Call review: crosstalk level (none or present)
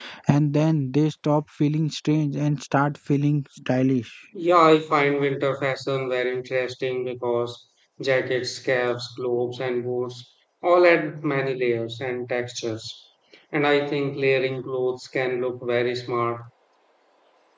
none